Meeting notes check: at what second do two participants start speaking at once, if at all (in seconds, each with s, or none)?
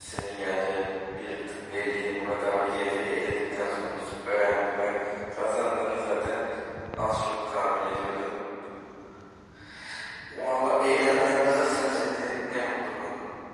10.3 s